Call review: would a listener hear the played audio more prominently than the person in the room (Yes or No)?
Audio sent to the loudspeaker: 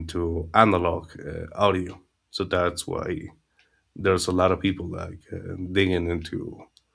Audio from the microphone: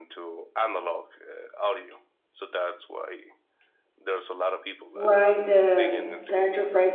No